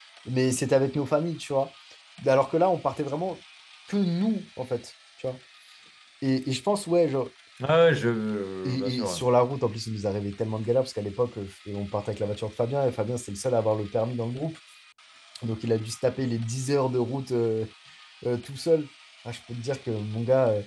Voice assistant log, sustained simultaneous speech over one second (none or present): none